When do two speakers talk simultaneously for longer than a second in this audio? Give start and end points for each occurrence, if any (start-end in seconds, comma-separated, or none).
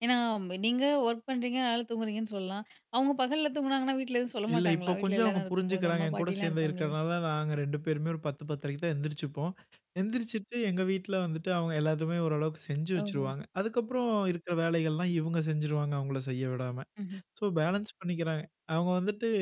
4.5-6.9